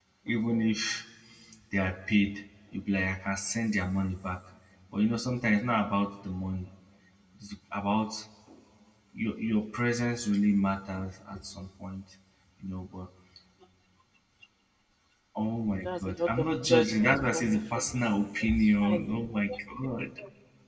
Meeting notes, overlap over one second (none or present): present